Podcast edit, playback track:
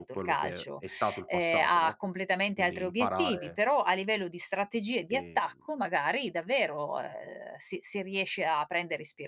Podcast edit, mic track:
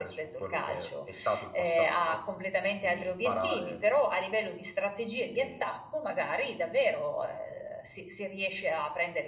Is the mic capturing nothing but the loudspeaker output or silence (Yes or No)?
Yes